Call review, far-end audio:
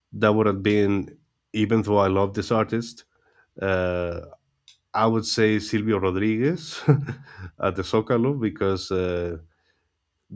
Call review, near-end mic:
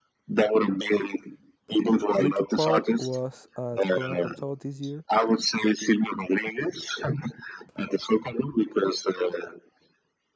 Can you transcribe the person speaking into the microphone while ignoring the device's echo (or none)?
Linkin Park was at Corona Capital this year,